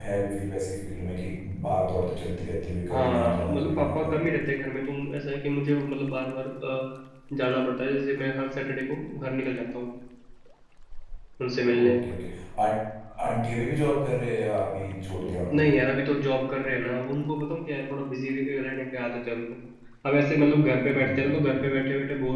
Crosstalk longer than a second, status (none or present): present